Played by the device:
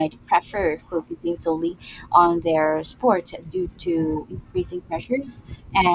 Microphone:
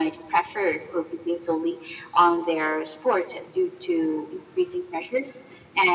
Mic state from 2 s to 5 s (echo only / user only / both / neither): echo only